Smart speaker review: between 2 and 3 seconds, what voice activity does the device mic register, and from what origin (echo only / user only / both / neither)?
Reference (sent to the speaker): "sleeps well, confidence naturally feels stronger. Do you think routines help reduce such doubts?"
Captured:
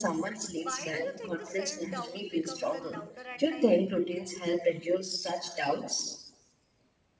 both